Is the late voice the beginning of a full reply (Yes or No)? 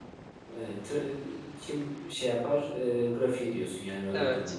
Yes